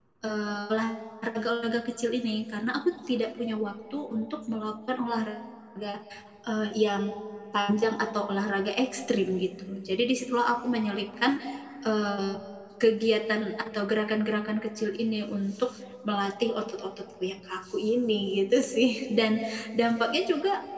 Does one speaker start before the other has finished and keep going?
No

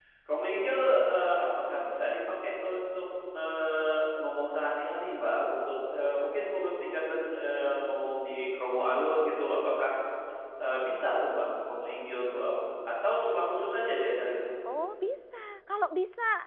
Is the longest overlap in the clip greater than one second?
No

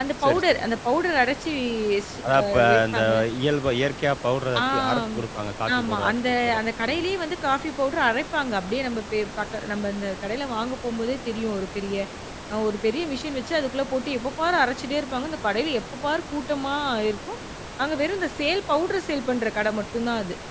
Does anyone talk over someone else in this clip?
Yes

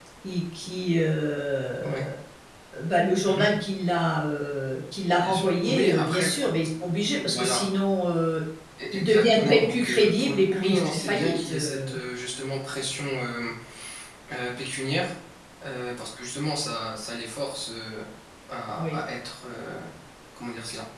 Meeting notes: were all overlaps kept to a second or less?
No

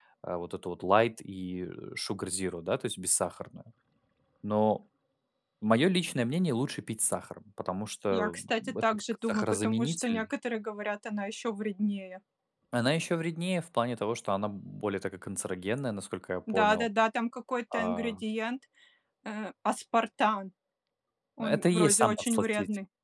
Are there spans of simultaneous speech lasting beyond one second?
Yes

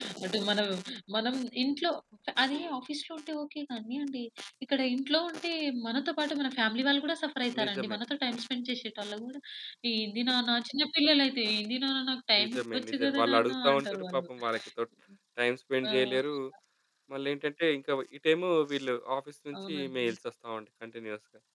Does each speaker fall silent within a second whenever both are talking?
No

